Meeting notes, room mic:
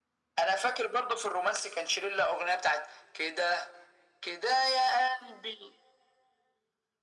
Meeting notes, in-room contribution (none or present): none